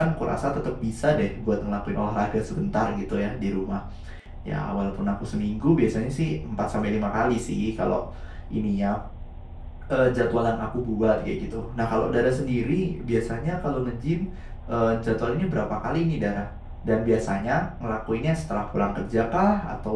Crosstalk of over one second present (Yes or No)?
No